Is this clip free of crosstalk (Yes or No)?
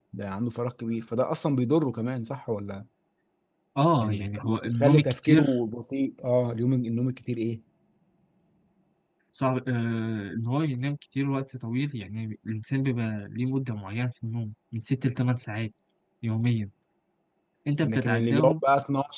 No